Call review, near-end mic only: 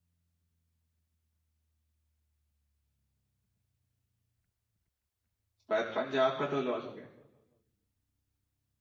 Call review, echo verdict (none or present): none